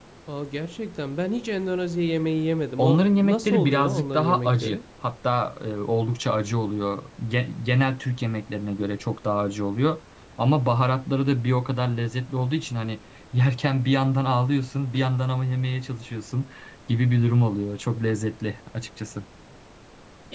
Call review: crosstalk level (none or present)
present